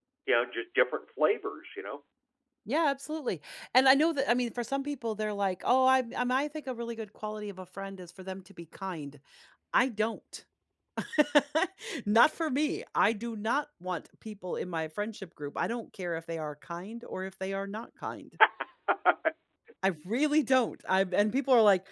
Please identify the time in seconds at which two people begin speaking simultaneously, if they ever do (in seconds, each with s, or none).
none